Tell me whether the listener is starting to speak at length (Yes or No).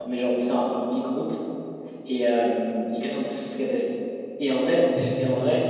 No